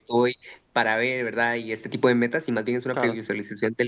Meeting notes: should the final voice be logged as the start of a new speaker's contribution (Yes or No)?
No